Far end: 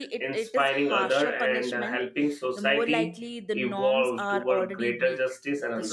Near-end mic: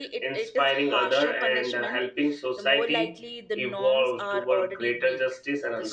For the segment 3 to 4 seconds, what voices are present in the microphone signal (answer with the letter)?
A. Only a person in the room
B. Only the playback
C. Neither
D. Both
B